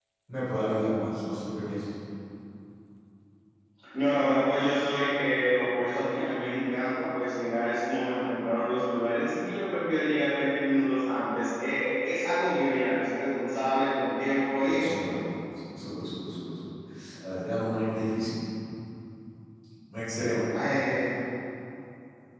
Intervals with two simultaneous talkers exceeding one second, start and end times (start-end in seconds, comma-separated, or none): none